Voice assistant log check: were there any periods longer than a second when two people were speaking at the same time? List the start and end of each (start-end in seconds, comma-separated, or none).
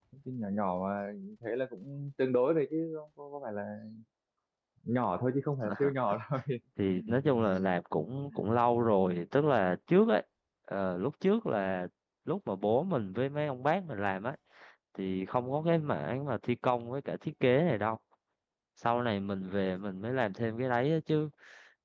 none